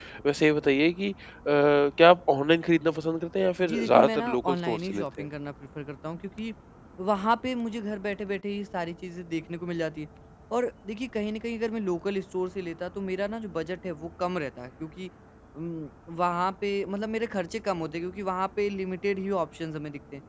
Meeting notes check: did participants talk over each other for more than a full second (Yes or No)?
Yes